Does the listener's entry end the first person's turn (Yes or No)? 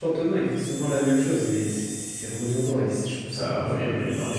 Yes